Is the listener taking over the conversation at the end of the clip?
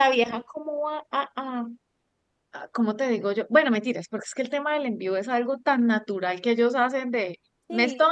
No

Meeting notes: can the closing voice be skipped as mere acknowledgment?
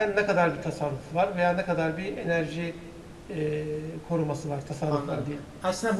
No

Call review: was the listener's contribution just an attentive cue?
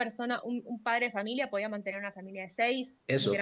No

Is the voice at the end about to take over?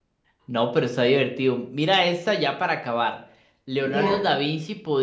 No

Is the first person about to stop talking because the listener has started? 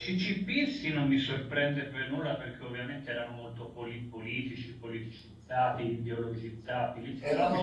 Yes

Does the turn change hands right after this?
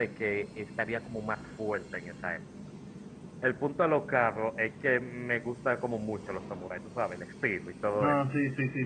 Yes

